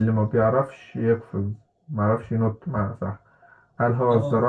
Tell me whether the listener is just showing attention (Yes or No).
Yes